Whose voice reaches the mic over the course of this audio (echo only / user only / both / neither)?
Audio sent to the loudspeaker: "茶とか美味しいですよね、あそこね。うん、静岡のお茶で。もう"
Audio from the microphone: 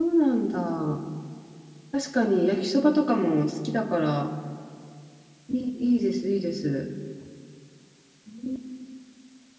user only